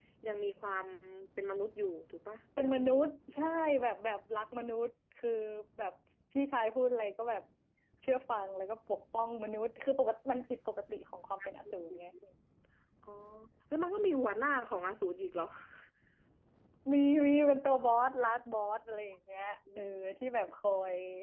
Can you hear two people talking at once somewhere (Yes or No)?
No